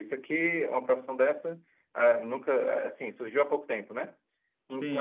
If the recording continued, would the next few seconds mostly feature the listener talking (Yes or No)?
Yes